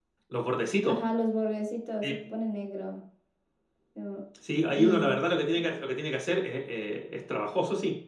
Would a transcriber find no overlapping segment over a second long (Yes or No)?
Yes